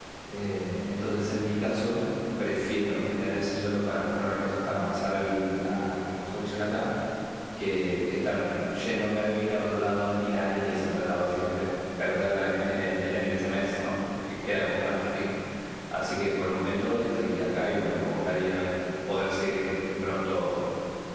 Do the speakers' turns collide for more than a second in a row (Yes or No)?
No